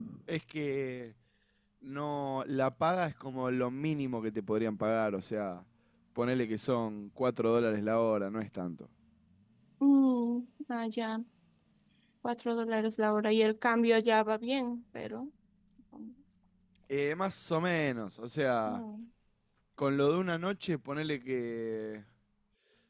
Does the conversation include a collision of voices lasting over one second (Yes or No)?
No